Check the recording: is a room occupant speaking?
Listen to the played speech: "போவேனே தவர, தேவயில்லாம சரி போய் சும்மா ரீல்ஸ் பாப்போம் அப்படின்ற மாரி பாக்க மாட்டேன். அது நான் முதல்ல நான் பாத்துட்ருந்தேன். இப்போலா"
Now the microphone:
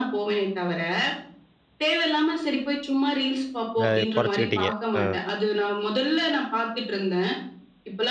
Yes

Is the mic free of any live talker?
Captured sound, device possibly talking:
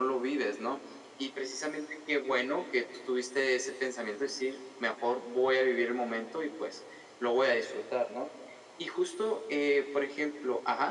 Yes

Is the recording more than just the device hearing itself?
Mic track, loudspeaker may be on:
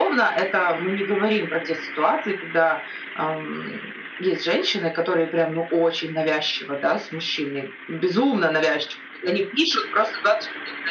No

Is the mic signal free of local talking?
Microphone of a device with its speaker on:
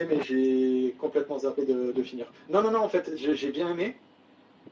Yes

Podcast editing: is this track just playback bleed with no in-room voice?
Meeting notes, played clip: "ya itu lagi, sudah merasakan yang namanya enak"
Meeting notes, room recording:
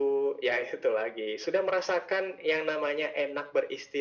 Yes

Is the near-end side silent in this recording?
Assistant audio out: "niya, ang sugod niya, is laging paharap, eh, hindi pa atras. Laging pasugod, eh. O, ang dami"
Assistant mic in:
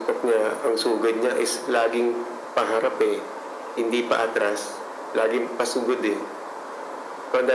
Yes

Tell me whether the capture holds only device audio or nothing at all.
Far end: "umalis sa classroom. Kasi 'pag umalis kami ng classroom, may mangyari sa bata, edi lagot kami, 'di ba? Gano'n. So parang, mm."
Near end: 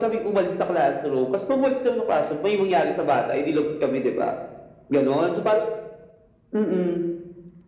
Yes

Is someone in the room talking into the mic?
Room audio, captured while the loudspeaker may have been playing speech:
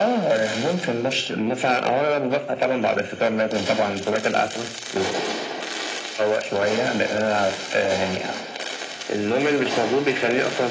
No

